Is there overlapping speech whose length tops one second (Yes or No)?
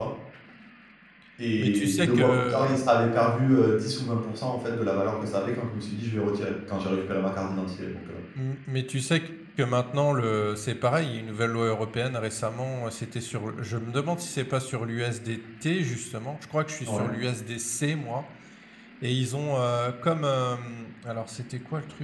Yes